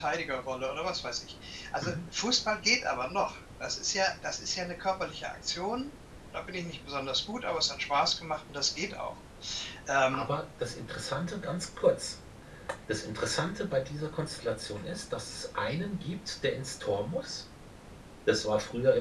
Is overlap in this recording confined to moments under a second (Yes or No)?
Yes